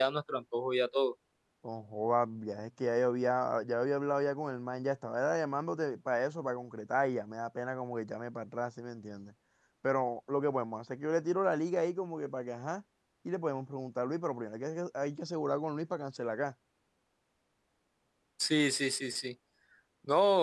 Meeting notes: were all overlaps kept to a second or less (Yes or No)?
Yes